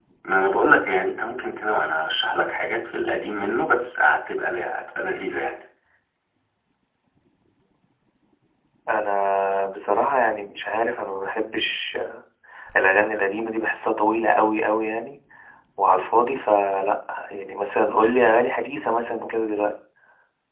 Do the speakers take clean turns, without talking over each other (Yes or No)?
Yes